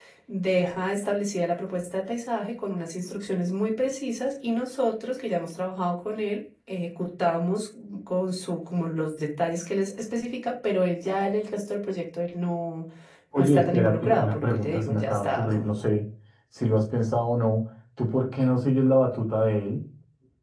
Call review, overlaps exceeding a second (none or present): present